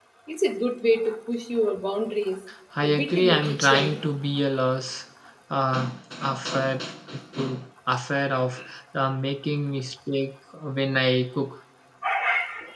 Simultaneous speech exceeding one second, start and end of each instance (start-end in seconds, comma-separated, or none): 2.8-4.0